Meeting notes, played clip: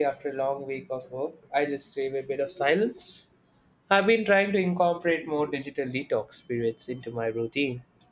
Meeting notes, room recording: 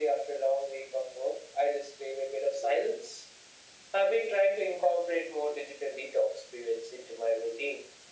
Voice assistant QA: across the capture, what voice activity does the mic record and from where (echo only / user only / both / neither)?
echo only